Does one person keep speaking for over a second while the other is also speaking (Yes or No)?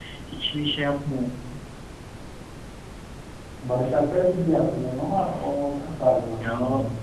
No